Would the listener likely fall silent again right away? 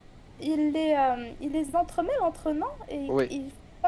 Yes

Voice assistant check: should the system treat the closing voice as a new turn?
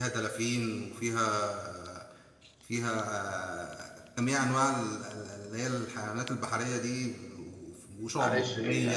Yes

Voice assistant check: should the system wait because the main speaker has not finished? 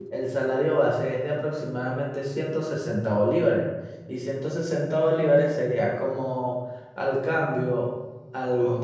Yes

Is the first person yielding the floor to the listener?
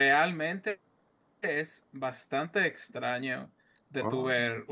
No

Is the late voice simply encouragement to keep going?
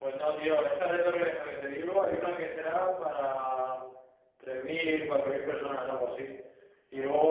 Yes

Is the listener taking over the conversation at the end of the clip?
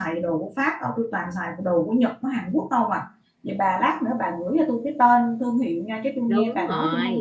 Yes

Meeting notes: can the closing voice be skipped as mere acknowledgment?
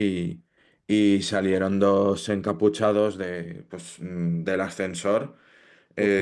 No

